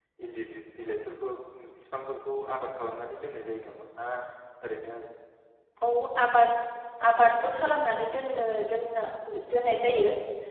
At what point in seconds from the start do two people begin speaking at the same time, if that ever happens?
none

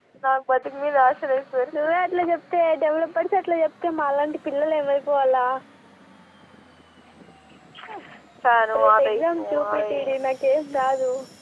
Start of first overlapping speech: 9 s

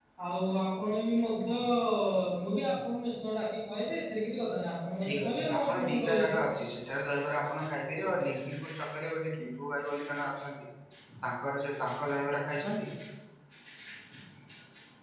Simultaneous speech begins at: 5 s

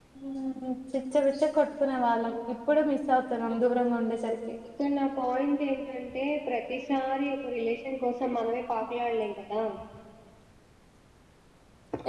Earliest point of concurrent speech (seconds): none

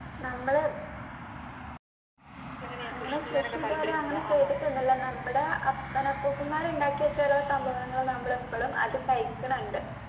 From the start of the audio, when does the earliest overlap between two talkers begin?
3 s

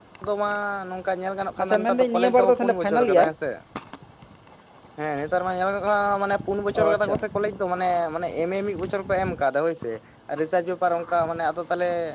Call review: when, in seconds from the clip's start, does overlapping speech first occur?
2 s

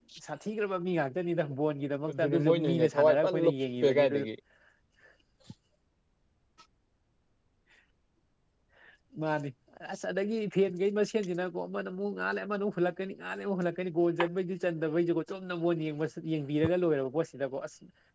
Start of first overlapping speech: 2 s

